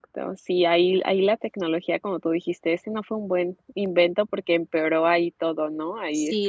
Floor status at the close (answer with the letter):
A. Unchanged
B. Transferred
B